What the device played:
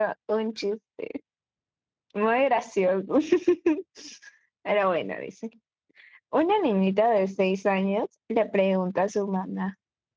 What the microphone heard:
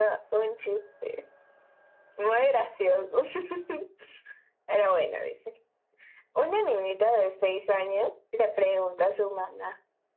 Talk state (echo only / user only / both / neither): echo only